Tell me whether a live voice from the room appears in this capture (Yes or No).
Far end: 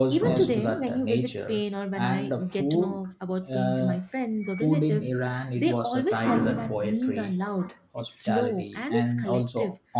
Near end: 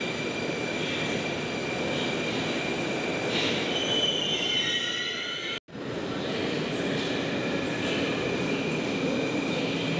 No